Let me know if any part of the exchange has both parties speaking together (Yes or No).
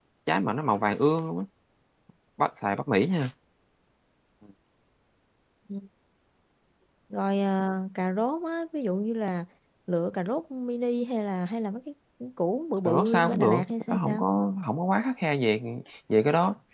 Yes